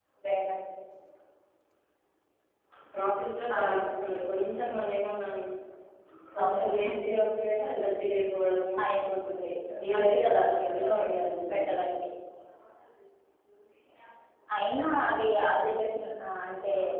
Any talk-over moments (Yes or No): Yes